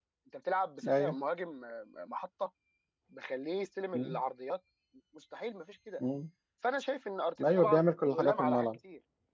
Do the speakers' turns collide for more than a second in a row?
Yes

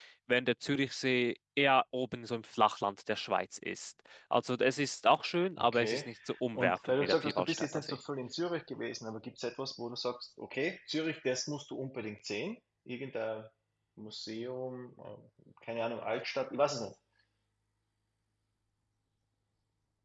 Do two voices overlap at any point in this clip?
Yes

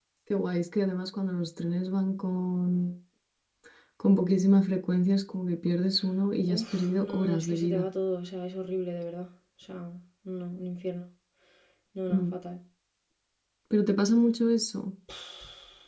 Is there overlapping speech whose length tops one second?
Yes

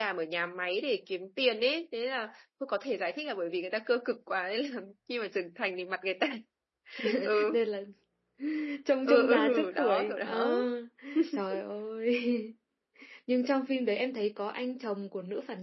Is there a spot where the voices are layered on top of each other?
Yes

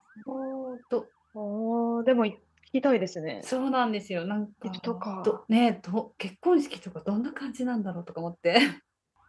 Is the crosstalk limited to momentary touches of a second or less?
Yes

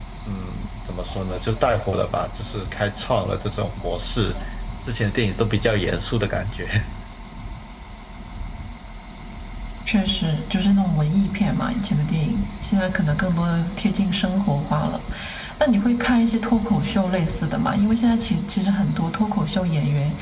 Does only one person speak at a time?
Yes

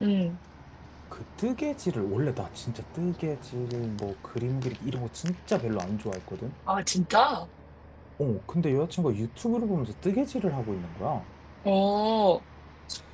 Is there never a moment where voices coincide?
Yes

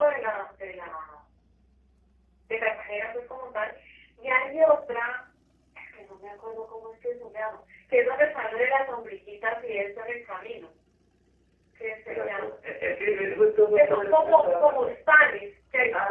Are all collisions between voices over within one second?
No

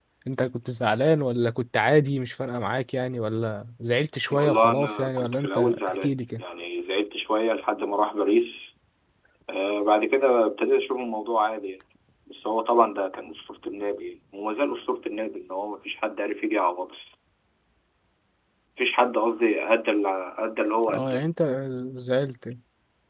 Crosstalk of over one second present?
Yes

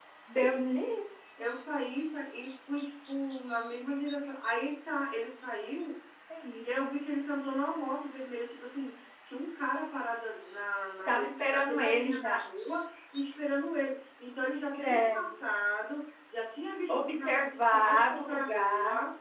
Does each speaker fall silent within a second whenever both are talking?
No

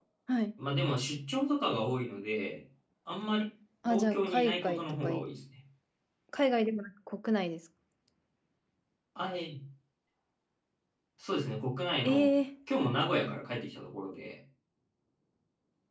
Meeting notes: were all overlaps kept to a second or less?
No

